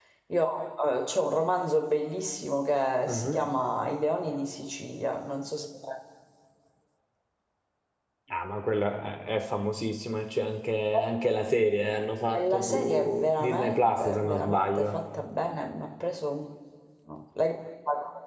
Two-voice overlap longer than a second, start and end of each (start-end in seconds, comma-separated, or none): 12.3-15.0